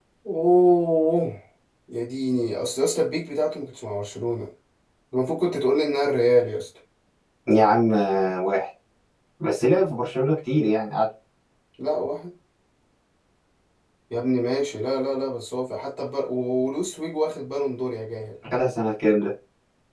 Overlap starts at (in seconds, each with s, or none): none